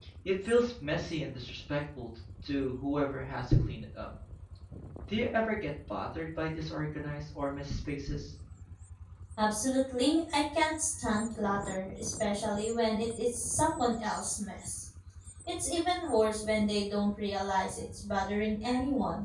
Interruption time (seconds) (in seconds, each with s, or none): none